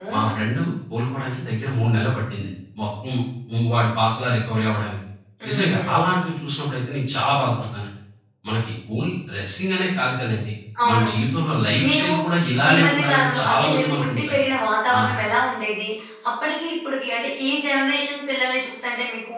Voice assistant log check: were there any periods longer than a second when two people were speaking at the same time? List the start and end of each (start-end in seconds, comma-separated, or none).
12.7-14.4